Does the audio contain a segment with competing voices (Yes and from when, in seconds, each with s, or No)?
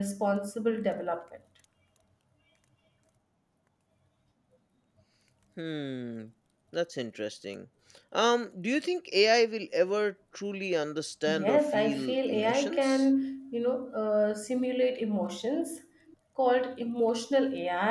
Yes, from 11.3 s